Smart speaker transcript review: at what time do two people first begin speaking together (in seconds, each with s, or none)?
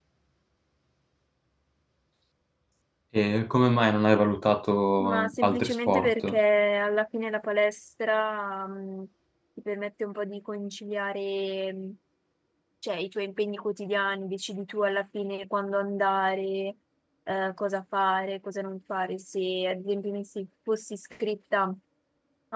5.0 s